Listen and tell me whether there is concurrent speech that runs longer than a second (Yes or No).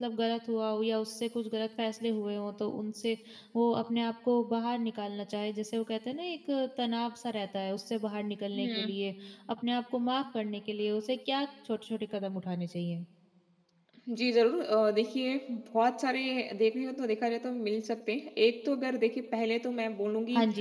No